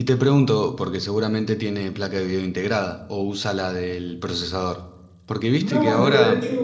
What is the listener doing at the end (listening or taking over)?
taking over